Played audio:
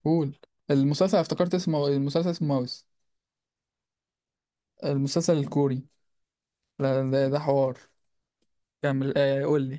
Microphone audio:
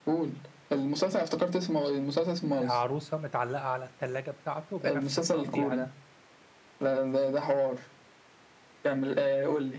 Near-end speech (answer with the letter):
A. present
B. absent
A